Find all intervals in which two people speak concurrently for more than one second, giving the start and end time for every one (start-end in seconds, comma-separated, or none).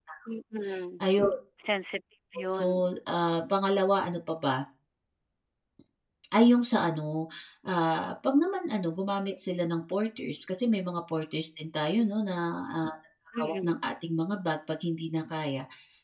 none